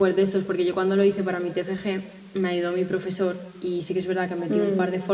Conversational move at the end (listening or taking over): listening